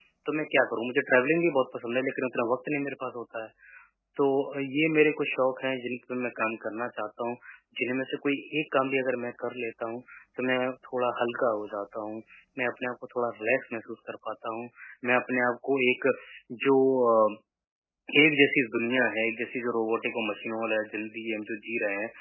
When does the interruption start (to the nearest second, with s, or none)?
none